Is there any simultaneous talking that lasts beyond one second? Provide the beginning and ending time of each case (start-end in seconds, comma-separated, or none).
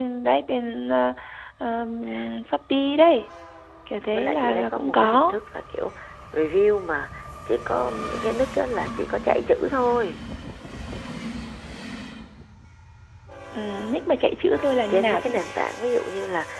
4.1-5.4